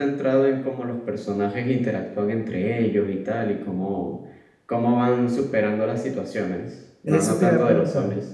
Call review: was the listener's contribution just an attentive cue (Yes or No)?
No